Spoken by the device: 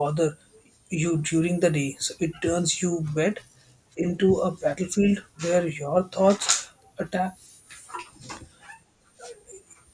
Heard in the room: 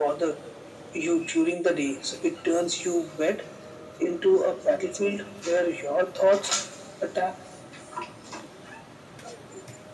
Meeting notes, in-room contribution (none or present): none